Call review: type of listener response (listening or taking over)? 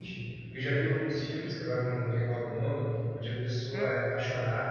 listening